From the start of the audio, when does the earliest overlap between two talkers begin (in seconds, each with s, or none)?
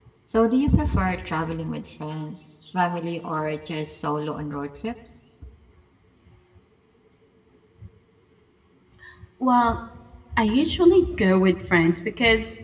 none